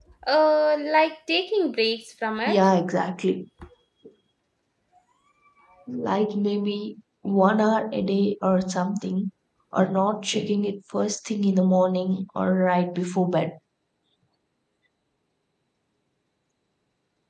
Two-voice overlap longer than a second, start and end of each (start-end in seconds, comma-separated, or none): none